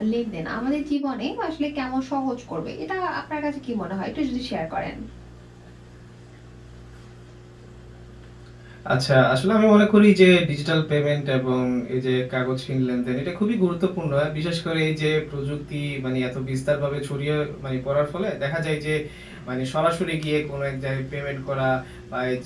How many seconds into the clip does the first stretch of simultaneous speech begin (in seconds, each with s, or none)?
none